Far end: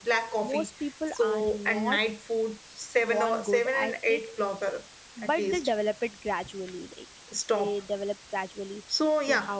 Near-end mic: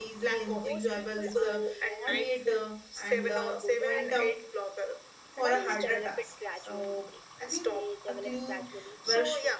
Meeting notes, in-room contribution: present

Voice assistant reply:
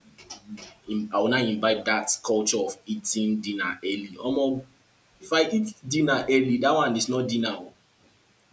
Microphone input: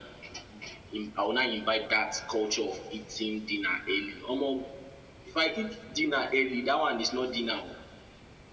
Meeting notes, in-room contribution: none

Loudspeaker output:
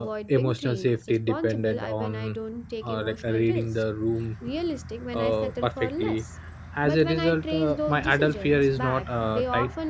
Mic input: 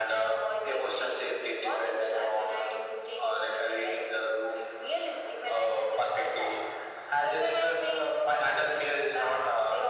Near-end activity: none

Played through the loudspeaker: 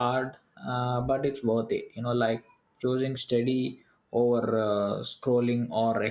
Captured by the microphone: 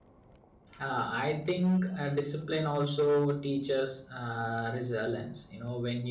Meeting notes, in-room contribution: present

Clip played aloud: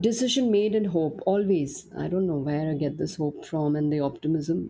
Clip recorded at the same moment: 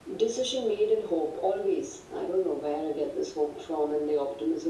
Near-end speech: none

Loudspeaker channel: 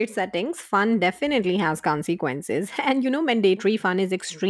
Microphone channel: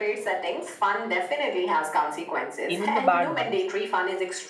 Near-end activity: present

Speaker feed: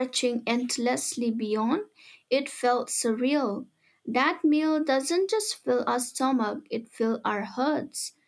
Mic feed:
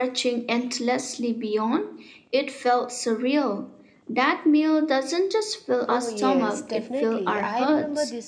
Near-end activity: present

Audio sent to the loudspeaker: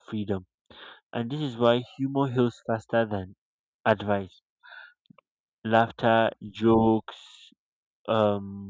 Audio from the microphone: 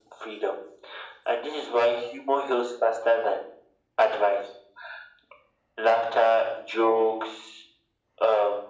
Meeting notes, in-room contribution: none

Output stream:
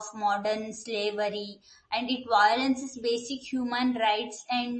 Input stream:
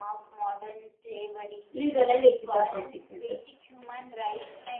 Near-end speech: present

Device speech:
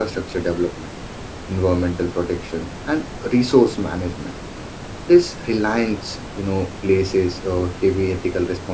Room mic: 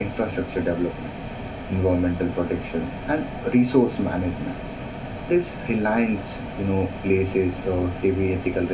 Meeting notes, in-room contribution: none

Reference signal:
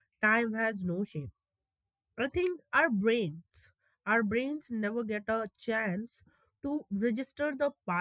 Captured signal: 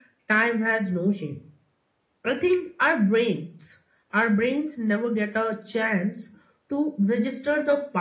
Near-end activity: none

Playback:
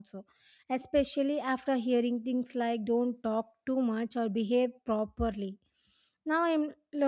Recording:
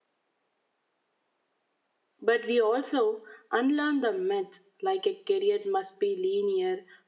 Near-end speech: present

